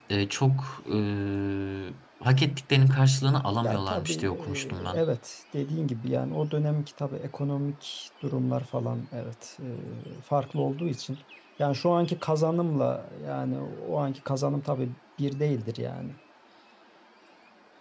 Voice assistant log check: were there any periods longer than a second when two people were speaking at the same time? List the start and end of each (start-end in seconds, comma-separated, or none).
3.6-5.0